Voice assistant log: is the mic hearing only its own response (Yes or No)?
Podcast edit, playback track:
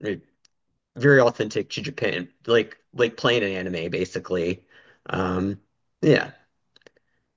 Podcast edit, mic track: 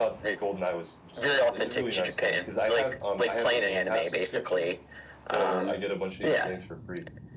No